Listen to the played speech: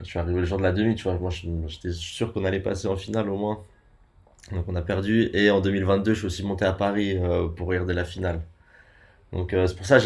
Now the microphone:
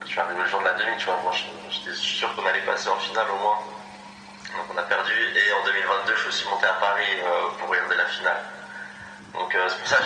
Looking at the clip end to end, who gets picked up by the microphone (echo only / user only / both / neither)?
echo only